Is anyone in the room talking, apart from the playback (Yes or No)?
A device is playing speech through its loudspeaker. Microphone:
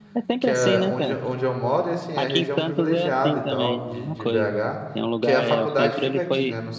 Yes